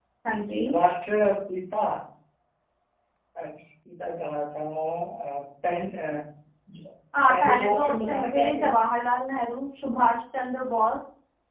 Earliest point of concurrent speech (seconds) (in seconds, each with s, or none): 7.3 s